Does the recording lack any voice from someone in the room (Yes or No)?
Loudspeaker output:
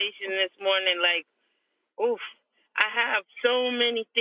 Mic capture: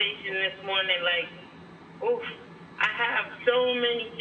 Yes